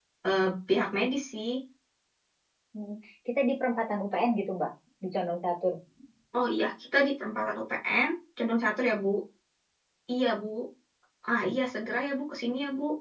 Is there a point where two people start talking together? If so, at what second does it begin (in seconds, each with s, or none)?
none